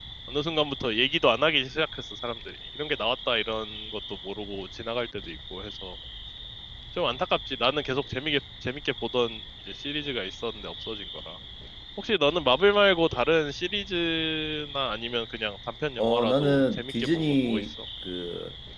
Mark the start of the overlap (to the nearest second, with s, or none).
16 s